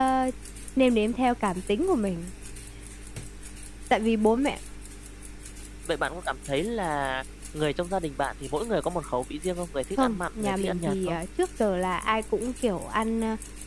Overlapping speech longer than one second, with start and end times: 10.0-11.2

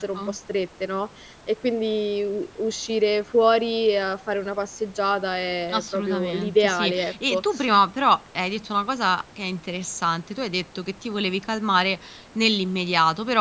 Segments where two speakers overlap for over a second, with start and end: 5.7-7.4

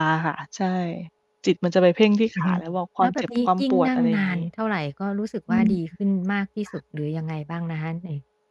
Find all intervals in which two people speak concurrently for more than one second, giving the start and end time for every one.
3.0-4.4

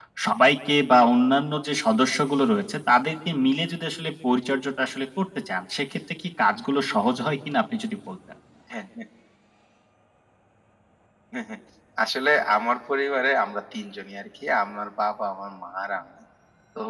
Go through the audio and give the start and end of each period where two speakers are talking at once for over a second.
none

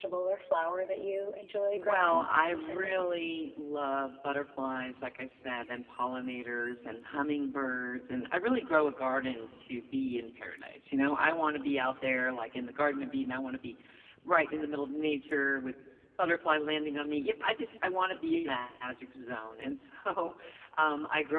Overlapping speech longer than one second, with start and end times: 1.8-3.0

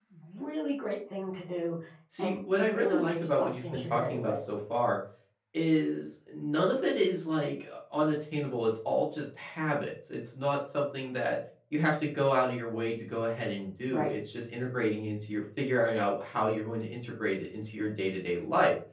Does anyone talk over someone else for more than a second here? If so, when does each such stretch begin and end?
2.2-4.3

